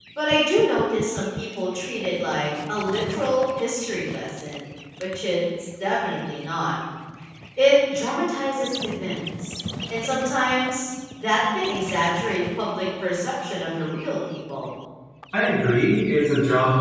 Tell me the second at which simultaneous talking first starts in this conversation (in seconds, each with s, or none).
none